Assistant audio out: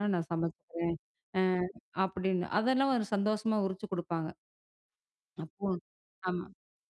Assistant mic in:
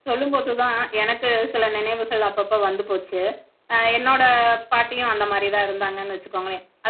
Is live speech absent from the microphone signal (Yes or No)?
No